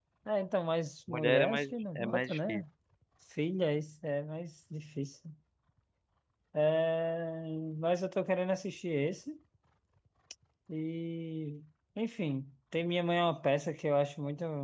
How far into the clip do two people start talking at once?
1.1 s

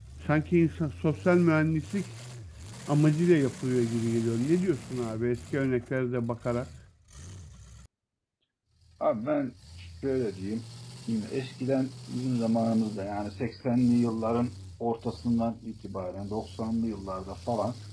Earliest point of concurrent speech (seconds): none

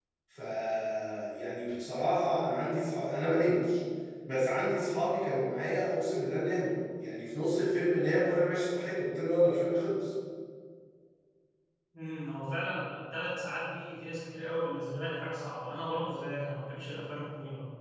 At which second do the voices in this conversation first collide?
none

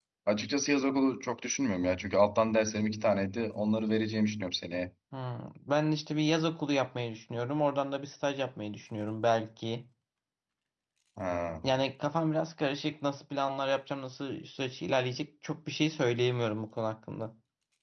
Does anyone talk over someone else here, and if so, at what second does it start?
none

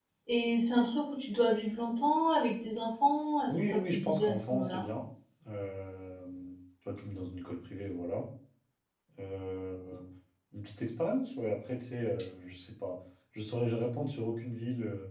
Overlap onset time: 3.5 s

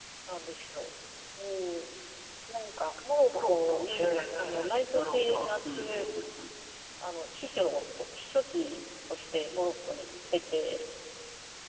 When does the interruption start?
3.3 s

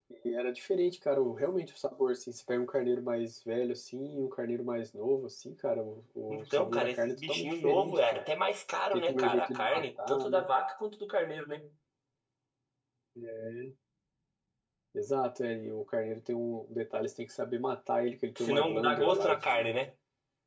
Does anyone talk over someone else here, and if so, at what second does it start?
6.3 s

